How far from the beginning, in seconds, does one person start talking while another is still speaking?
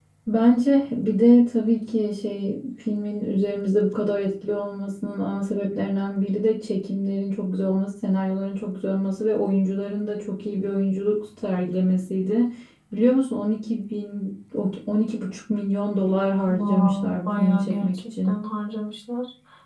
16.5 s

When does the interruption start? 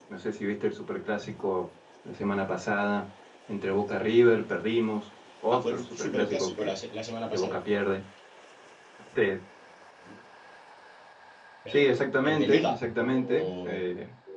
5.5 s

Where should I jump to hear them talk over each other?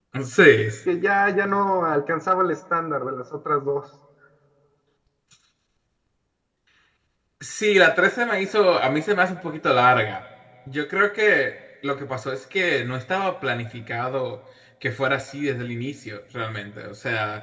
none

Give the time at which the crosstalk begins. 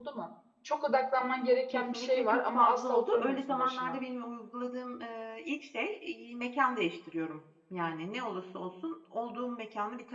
1.7 s

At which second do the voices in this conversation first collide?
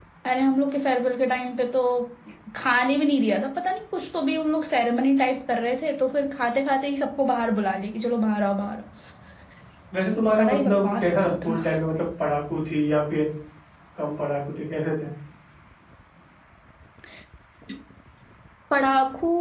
10.4 s

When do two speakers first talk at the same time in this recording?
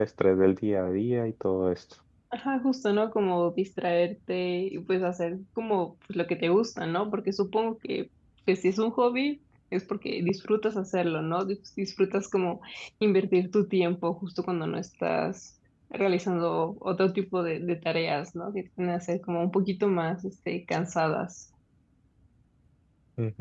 none

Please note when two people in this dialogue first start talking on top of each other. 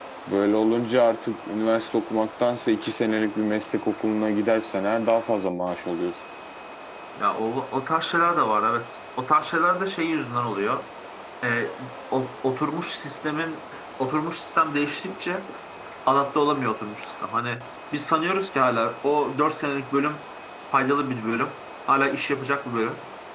none

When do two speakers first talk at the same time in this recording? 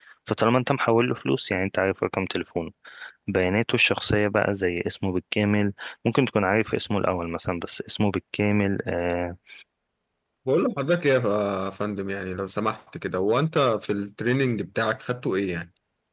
none

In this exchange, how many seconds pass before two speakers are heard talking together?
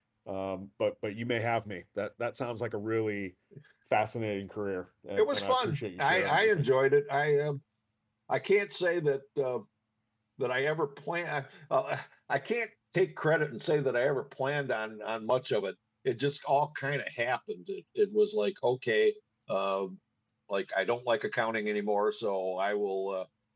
5.2 s

